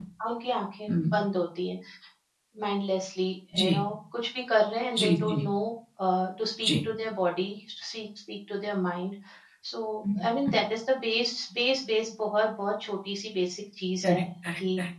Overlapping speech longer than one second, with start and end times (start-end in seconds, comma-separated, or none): none